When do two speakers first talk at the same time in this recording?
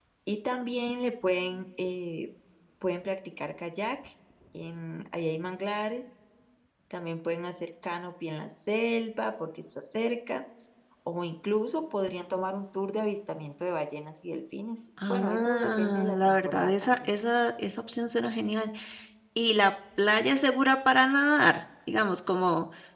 15.0 s

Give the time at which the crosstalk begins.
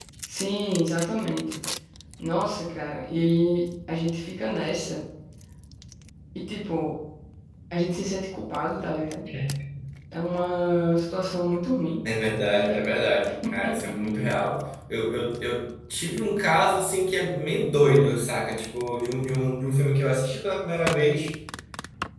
none

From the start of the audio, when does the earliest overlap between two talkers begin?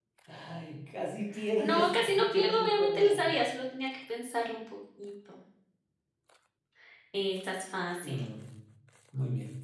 1.6 s

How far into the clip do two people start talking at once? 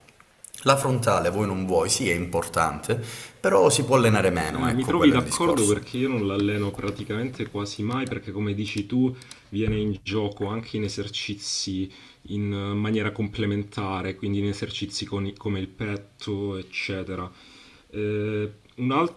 4.5 s

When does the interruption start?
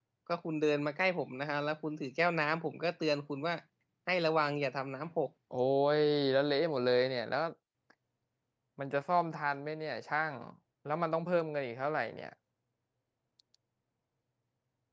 none

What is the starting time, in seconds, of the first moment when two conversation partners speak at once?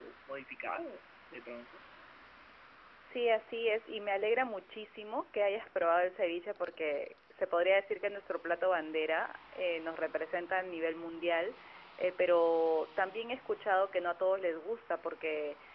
none

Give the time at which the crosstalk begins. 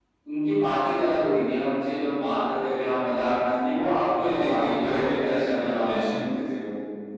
4.1 s

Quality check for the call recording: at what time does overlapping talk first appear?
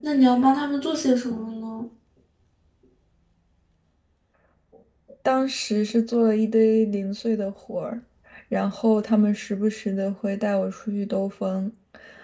none

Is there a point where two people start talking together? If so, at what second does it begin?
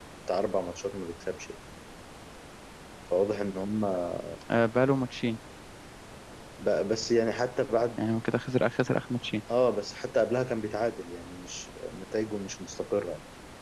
none

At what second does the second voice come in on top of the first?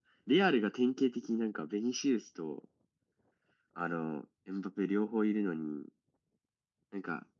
none

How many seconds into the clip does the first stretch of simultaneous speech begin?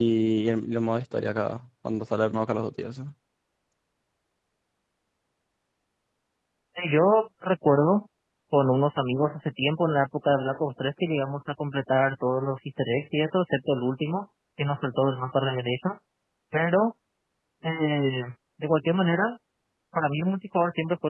none

